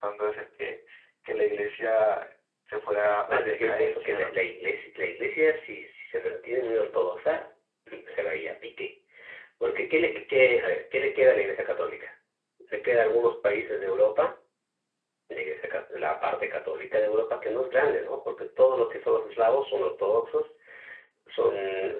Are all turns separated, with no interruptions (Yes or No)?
No